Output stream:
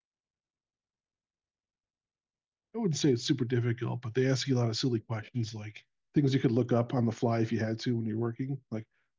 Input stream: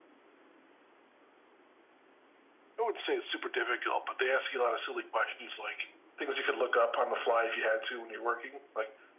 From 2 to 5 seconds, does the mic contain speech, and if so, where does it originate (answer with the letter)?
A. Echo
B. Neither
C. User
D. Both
A